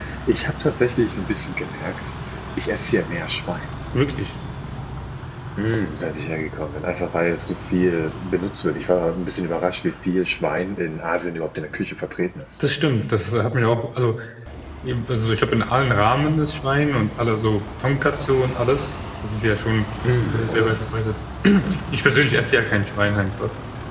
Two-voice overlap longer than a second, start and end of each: none

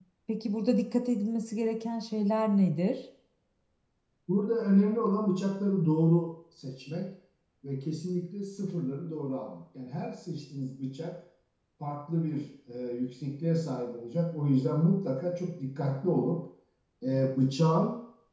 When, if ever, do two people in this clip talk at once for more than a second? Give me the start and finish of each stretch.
none

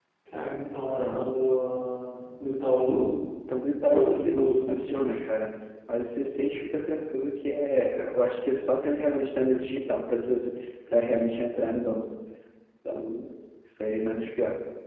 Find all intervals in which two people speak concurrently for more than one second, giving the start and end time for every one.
3.9-5.1

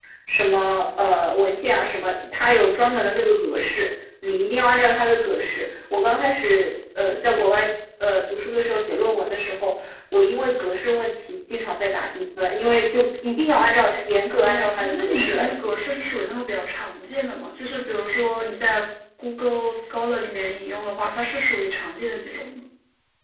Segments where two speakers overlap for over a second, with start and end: 14.3-15.7

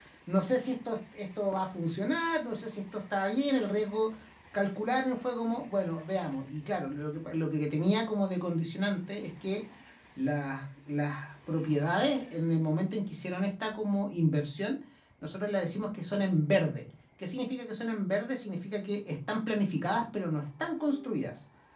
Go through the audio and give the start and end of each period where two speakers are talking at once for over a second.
none

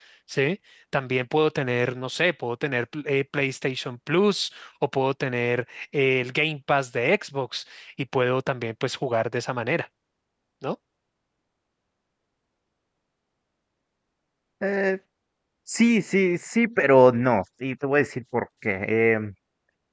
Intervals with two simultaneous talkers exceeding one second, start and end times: none

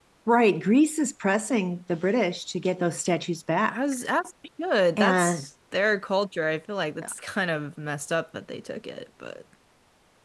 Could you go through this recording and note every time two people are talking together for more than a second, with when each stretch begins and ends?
none

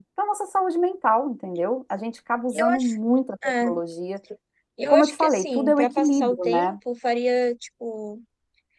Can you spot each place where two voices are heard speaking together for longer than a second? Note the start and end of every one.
4.9-6.8

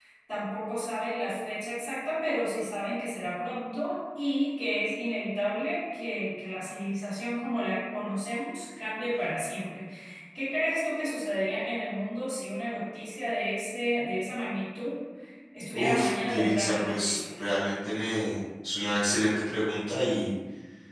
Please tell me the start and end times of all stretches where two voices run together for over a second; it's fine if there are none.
15.7-17.4

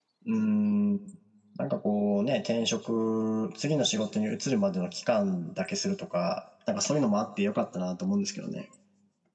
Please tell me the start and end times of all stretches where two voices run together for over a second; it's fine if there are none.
none

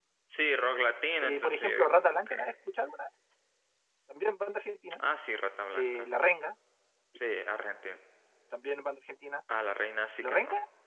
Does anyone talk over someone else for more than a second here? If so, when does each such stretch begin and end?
1.2-2.5

